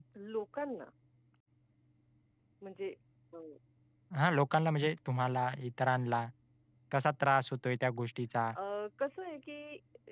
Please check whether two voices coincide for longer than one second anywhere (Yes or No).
No